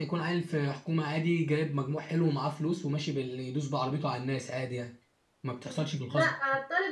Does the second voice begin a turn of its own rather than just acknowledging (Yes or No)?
Yes